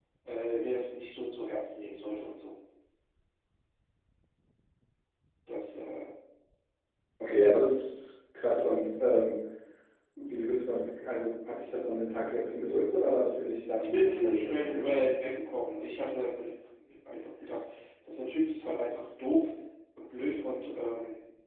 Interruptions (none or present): present